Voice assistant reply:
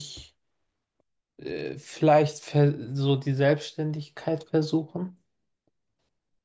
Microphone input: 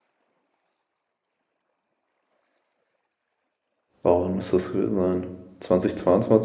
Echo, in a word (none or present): none